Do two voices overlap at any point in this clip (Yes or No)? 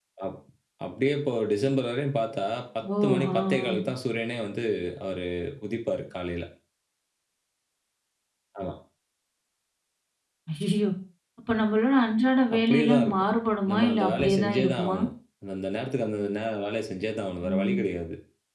Yes